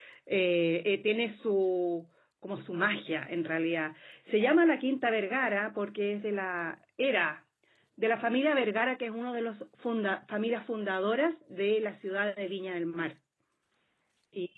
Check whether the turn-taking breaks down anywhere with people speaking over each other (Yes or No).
No